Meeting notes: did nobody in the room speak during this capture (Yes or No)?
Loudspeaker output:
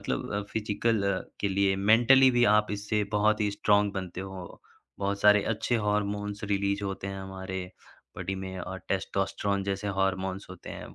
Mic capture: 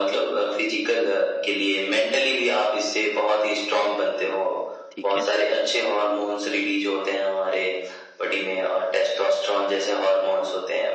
No